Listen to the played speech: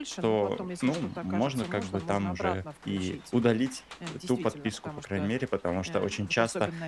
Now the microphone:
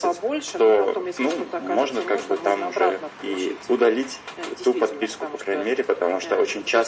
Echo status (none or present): present